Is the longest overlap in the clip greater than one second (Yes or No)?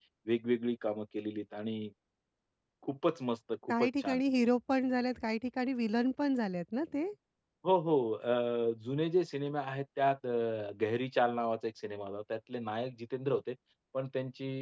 No